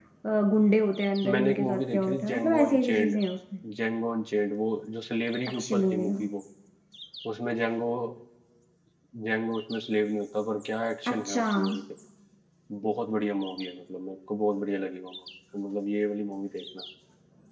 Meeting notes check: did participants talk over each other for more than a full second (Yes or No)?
Yes